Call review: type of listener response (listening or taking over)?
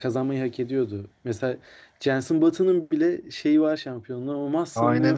taking over